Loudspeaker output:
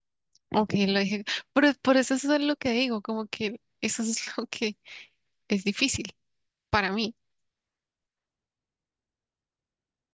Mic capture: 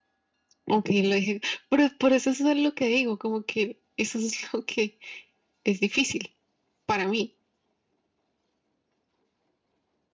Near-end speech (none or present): none